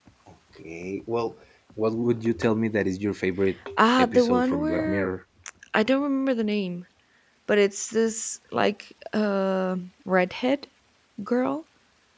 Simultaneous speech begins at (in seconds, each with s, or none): 3.8 s